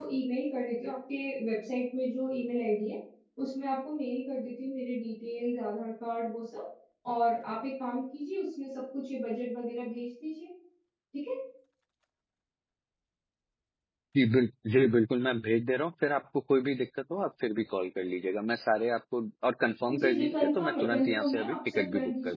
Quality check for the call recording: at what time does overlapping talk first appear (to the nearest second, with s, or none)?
20 s